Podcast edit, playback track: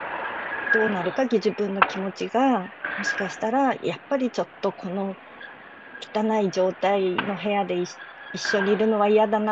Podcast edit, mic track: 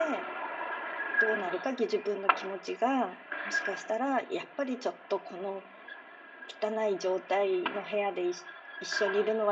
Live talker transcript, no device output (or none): none